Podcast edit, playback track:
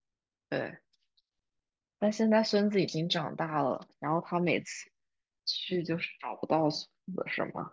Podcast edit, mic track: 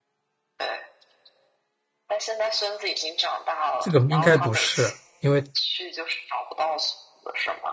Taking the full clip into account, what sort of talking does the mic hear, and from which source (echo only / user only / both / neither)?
both